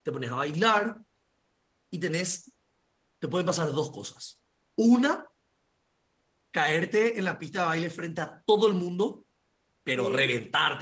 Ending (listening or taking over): listening